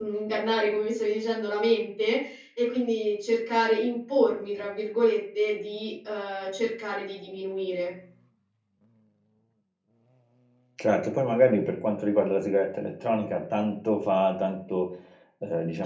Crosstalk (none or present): none